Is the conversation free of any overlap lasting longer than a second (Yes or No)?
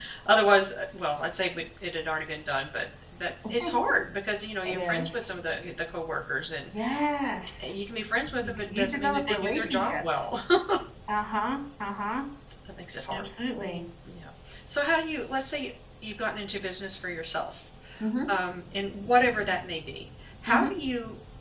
No